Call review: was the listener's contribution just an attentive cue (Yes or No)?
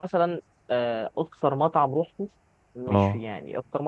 Yes